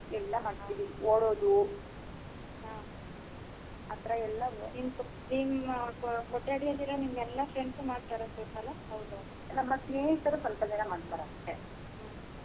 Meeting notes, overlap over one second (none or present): none